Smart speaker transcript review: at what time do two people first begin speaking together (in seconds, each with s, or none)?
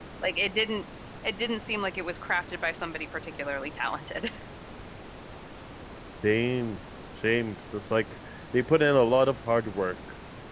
none